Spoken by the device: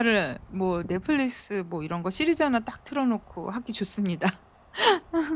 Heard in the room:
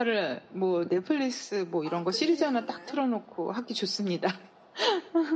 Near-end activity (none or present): present